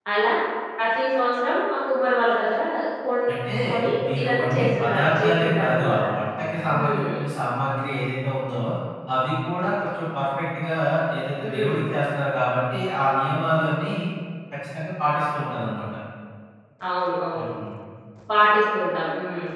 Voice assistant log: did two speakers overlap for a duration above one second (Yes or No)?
Yes